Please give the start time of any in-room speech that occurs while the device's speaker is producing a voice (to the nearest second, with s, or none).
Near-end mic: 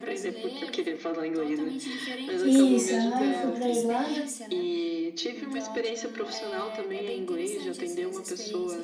2 s